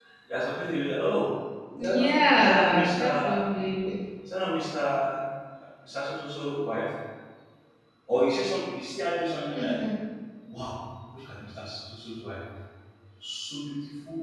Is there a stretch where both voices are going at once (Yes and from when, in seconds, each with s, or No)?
Yes, from 1.8 s